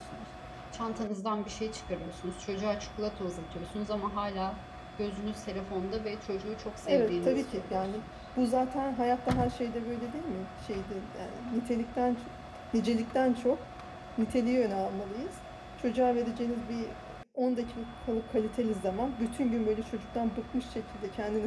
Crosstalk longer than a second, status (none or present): present